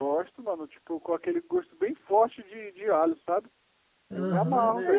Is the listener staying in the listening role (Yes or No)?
No